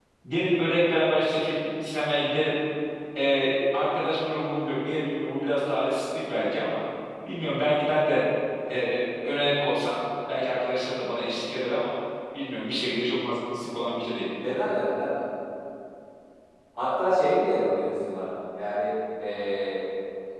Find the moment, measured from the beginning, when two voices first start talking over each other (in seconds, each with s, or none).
none